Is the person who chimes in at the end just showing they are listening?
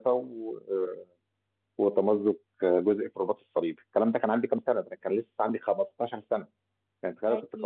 Yes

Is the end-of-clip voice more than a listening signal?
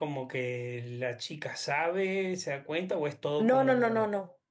Yes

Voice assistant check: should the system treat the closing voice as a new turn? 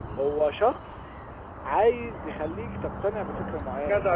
Yes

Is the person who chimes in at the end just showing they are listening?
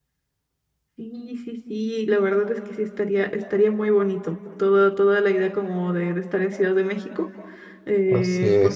Yes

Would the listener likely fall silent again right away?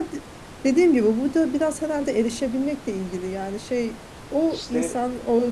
Yes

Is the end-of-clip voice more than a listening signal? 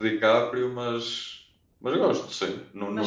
No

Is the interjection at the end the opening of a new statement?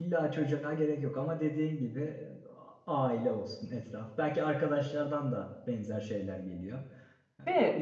No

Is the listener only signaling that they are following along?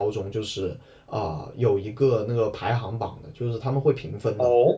Yes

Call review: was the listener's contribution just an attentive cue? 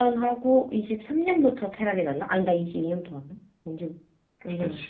No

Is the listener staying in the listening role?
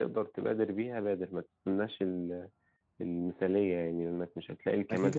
No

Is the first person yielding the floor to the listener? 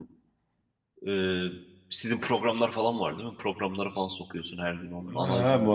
Yes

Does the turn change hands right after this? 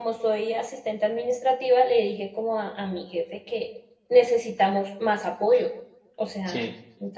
No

